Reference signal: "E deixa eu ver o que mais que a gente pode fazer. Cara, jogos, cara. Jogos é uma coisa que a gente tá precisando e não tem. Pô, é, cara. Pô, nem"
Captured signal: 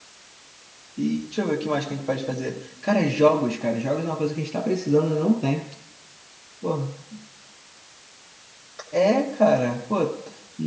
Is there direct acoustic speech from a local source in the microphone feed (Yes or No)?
No